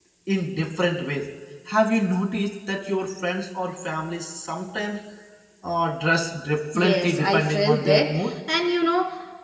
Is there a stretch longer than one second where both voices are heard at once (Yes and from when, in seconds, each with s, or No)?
Yes, from 6.8 s